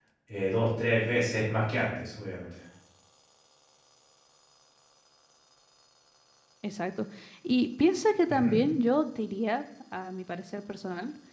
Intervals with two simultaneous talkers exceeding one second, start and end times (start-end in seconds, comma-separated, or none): none